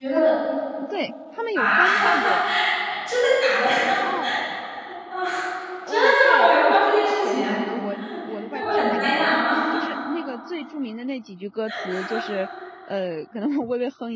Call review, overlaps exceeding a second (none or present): present